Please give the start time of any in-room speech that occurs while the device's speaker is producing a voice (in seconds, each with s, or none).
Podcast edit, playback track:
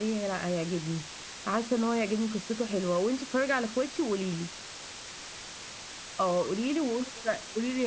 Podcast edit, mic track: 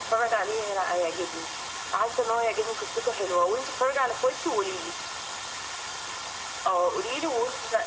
none